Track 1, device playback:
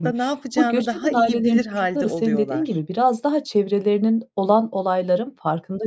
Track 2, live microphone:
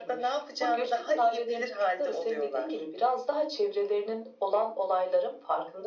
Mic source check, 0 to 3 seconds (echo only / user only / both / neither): echo only